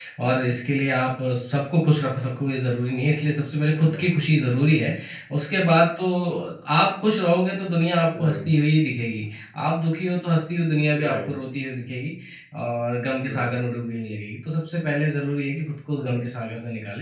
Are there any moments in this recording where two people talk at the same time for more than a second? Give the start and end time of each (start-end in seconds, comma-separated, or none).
none